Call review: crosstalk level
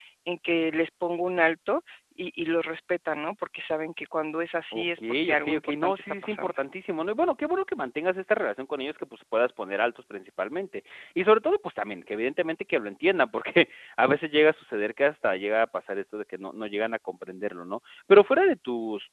present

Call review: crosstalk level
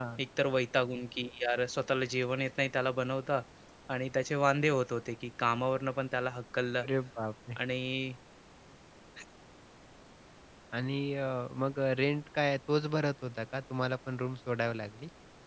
none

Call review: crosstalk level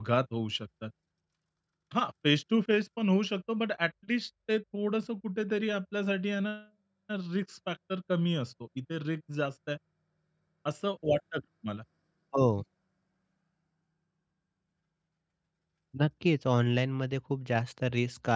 none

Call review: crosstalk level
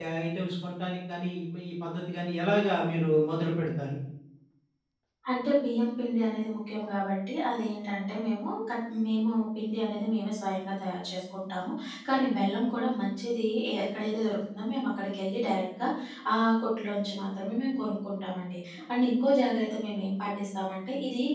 none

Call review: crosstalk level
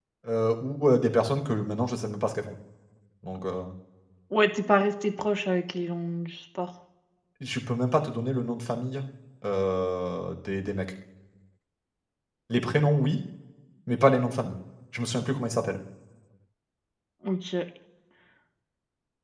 none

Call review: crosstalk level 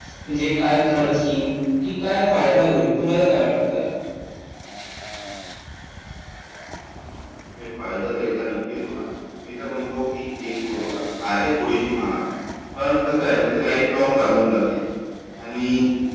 none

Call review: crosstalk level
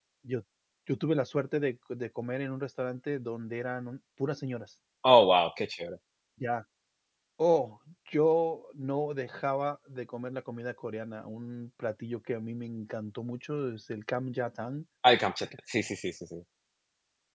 none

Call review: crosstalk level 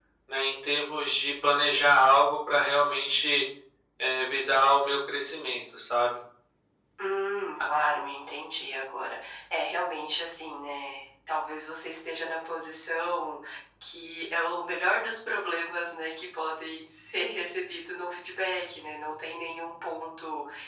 none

